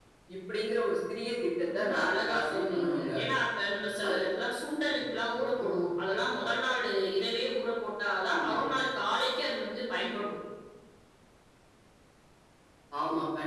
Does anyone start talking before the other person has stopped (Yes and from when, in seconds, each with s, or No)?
Yes, from 1.6 s